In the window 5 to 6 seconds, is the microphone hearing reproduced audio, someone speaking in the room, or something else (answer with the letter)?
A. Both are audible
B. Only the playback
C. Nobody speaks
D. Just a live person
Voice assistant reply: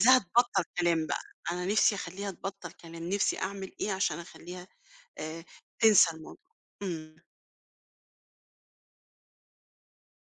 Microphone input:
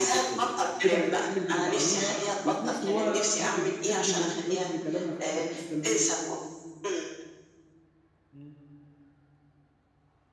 A